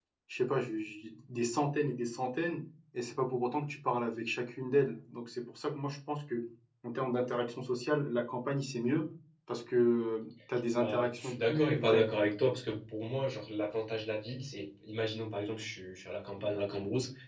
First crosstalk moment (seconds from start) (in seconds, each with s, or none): 10.7 s